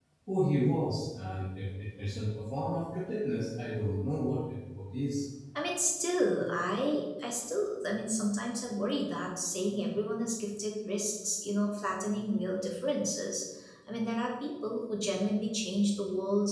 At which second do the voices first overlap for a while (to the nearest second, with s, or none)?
none